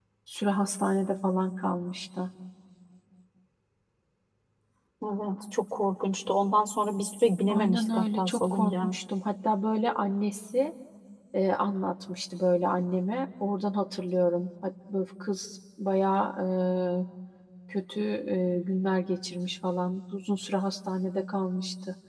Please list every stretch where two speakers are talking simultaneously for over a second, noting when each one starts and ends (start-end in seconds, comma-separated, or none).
7.5-8.9